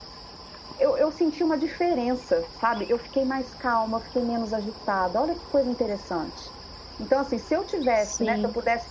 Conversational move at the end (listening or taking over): listening